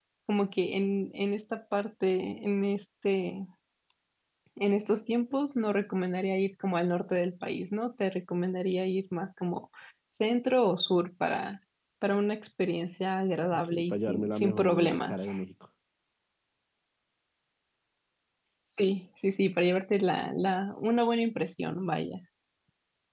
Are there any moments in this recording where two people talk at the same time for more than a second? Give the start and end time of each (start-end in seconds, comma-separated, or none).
13.5-15.3